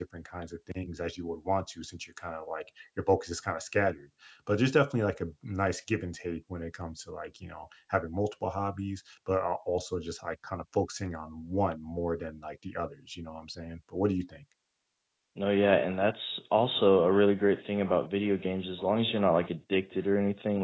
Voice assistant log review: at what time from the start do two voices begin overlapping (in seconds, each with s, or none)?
none